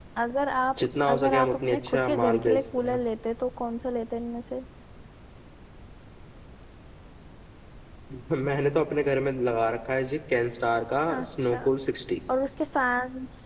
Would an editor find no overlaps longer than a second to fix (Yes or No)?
No